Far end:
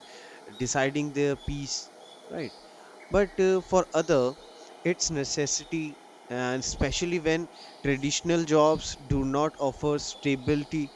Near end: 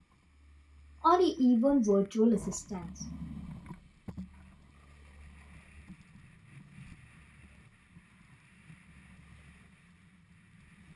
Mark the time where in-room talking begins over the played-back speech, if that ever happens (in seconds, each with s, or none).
1.0 s